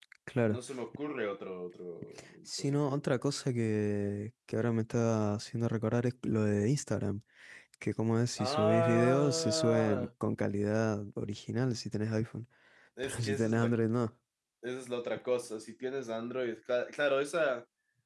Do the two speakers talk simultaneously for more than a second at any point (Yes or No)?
Yes